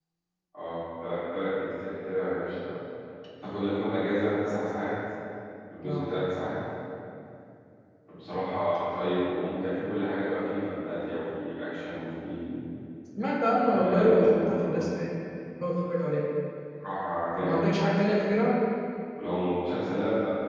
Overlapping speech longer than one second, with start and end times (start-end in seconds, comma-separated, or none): 13.6-14.8